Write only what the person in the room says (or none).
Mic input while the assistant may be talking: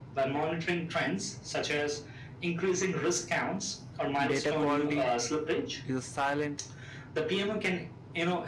Data quality is a silent